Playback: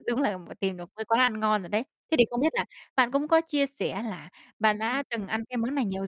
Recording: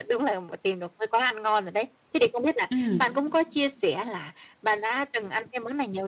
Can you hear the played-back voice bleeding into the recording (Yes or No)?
Yes